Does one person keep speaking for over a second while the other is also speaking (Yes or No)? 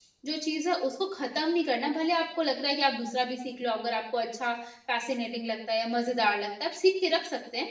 No